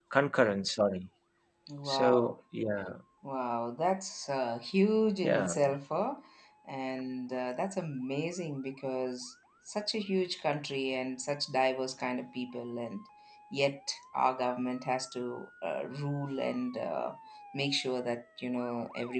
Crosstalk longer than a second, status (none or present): none